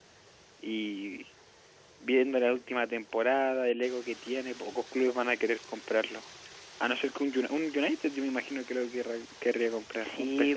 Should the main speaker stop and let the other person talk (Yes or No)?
Yes